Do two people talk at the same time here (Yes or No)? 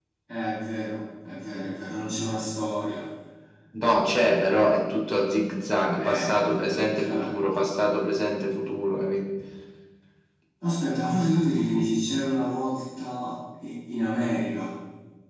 Yes